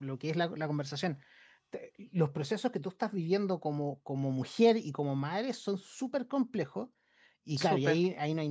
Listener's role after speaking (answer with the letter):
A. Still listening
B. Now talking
A